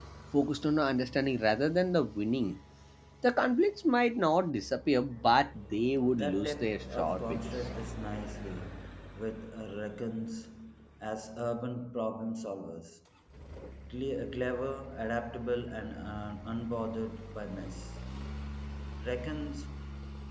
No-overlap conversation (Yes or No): No